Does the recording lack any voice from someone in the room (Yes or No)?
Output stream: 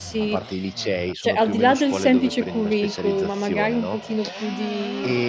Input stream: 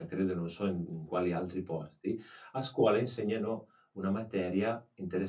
No